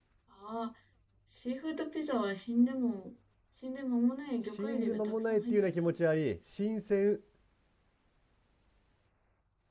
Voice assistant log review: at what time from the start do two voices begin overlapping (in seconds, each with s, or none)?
4.6 s